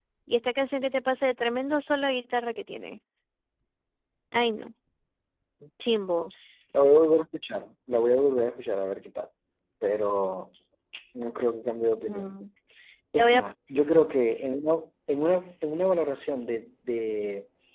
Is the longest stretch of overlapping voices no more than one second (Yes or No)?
Yes